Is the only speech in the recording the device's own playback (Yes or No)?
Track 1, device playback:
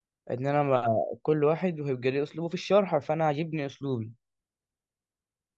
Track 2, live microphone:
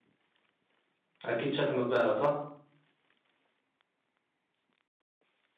No